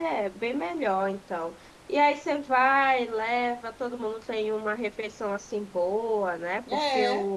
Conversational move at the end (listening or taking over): listening